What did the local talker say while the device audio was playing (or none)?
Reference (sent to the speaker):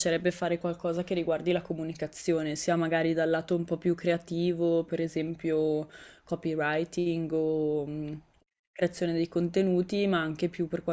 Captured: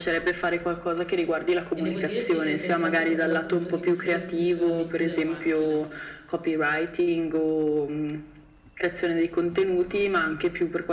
E devo dire sì che è interessante proprio dal punto di vista del funzionamento della macchina.